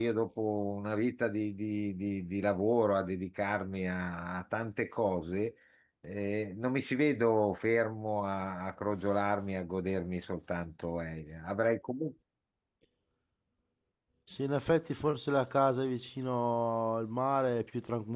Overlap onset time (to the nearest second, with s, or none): none